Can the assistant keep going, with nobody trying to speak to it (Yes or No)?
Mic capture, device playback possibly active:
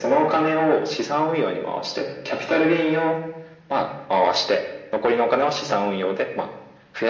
Yes